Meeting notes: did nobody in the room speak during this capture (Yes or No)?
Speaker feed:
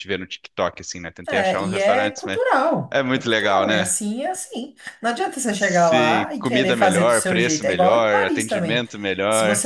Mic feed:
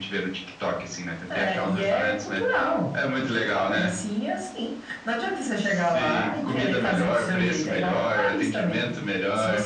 Yes